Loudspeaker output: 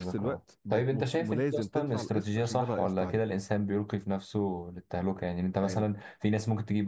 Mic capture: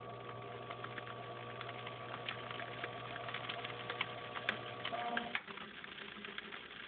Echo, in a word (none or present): none